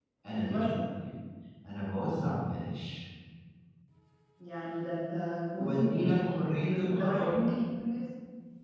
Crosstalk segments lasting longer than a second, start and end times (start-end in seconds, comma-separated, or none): 5.6-7.4